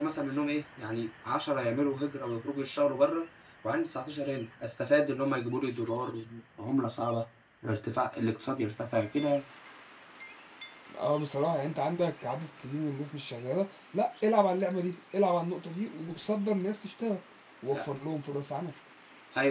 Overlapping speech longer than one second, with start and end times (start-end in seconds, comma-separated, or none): none